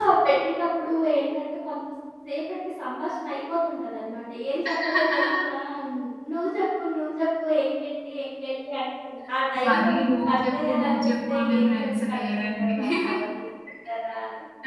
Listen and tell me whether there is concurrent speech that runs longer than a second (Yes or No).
Yes